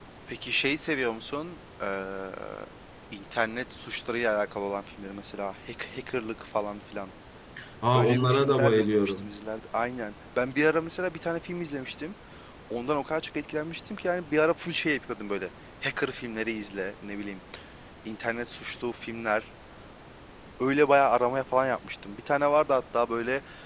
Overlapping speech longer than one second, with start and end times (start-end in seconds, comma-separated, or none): 7.9-9.3